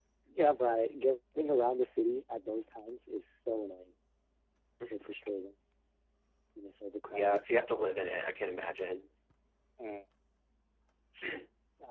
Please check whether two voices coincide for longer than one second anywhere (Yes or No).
No